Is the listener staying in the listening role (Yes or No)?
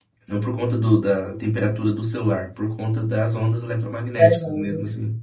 No